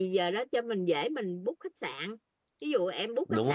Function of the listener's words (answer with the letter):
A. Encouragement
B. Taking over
A